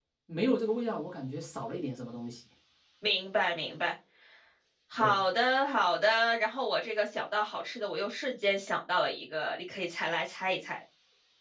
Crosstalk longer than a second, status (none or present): none